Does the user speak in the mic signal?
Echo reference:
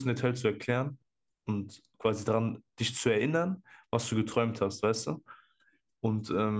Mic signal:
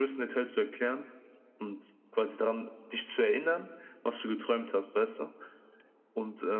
No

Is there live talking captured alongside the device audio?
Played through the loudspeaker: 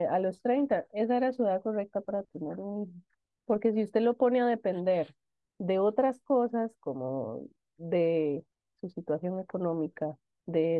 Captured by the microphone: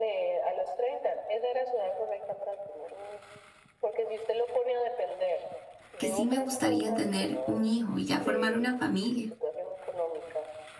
Yes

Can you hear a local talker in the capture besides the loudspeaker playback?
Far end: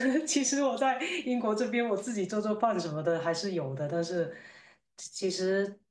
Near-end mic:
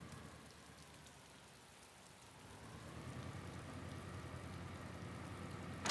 No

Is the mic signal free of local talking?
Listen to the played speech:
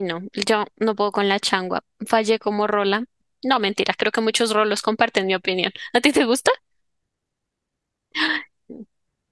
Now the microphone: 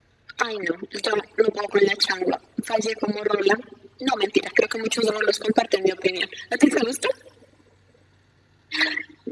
Yes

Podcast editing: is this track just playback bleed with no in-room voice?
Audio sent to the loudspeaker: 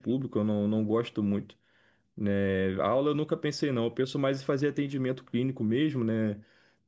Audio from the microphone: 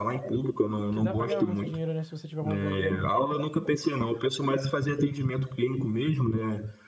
No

